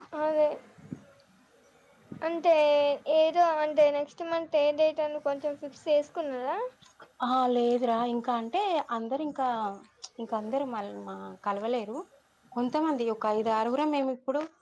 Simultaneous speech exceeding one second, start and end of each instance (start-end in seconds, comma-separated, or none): none